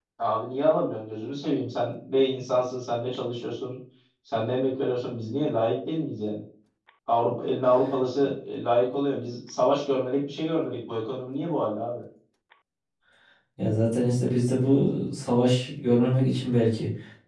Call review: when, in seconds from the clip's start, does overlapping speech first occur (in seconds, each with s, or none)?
none